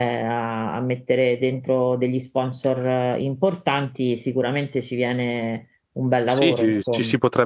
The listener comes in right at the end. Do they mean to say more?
Yes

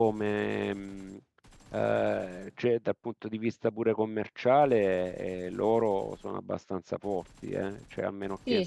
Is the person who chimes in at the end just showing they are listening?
No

